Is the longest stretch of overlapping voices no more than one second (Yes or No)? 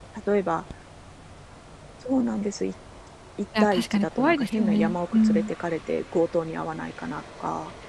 No